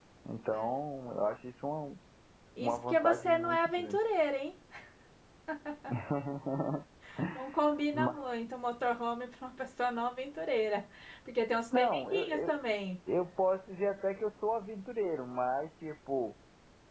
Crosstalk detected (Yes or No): Yes